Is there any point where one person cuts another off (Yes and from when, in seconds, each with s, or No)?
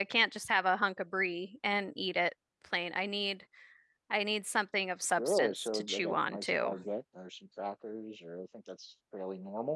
Yes, from 5.2 s